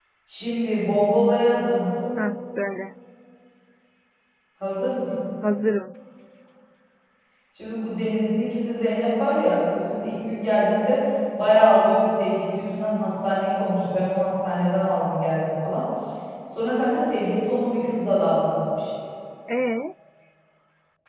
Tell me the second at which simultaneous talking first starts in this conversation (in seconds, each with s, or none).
none